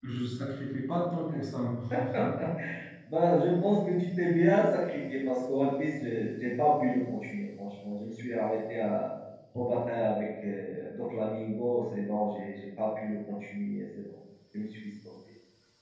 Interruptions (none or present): none